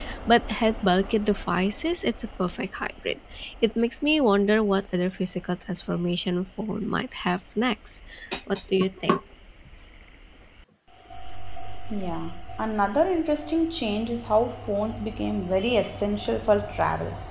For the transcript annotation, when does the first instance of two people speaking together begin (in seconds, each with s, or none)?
none